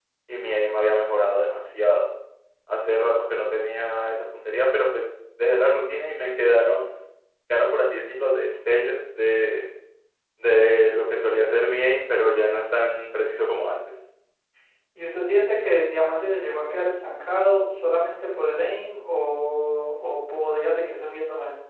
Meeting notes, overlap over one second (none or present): none